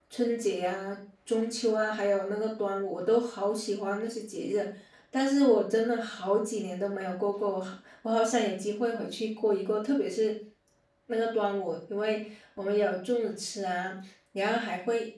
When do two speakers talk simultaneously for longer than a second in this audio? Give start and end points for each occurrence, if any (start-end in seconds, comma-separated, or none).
none